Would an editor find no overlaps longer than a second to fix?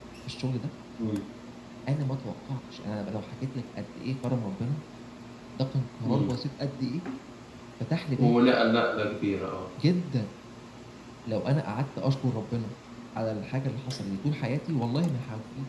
Yes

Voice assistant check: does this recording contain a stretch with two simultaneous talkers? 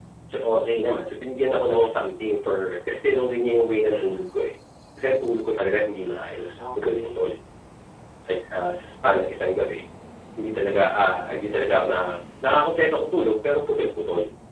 Yes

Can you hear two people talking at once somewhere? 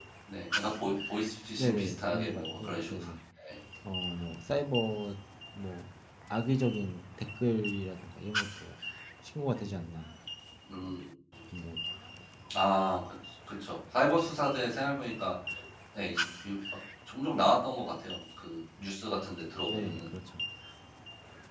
Yes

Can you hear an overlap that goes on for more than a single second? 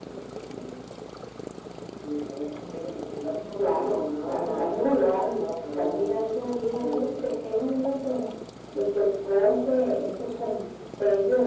Yes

